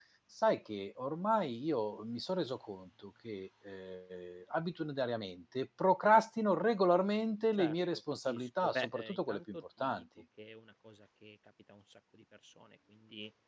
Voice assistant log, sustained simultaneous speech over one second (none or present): present